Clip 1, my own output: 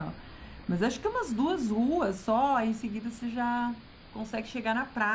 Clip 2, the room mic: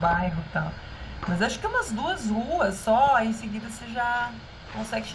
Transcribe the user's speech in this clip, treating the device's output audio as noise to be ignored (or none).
none